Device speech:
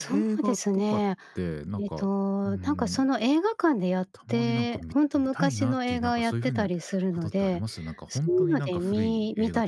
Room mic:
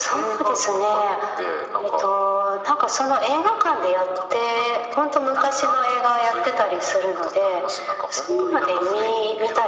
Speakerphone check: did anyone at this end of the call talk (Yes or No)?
No